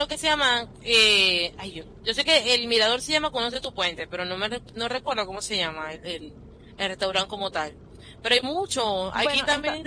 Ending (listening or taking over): listening